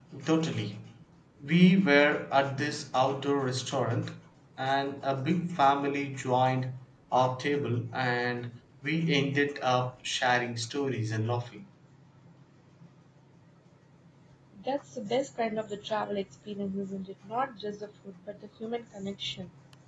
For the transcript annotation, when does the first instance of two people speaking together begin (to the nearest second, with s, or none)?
none